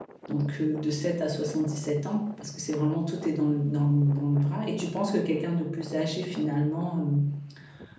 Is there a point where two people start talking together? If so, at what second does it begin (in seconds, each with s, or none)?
none